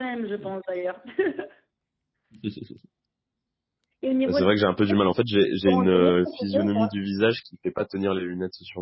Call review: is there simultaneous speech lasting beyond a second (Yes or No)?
Yes